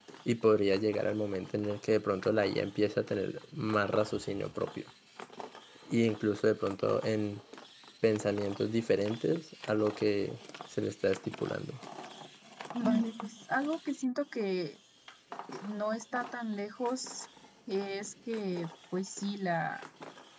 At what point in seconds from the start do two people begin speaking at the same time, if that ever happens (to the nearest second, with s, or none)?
none